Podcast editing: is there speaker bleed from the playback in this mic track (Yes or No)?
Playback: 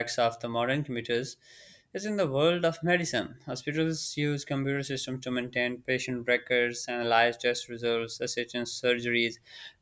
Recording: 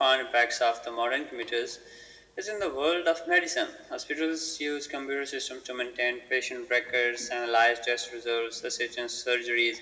Yes